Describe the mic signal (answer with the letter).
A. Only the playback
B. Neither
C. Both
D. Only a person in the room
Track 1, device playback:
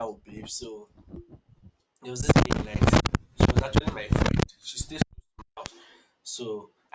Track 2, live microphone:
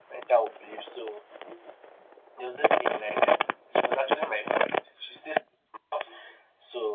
A